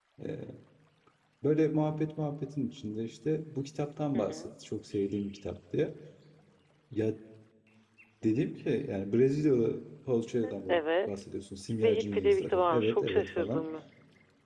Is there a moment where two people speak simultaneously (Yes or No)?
Yes